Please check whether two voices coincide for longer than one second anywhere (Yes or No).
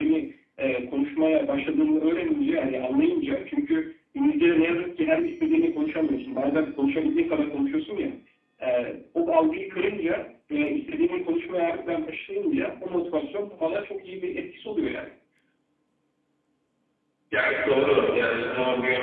No